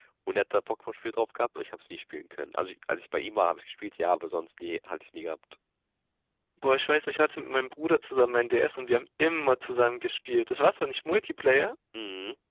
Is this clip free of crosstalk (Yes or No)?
Yes